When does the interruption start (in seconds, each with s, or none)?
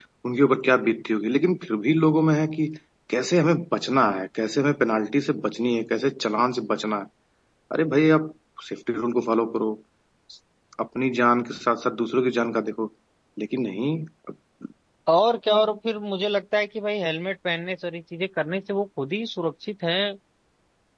none